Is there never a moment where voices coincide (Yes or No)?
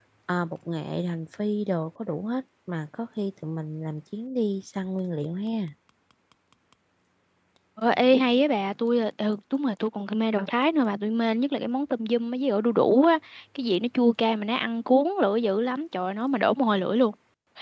Yes